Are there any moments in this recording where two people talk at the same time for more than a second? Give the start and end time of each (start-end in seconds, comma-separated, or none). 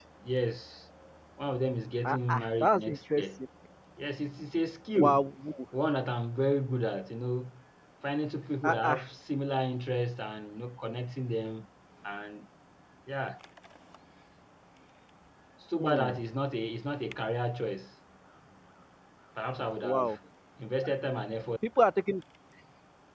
2.0-3.4